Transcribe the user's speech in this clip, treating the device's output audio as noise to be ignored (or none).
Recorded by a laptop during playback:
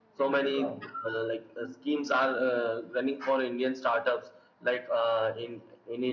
none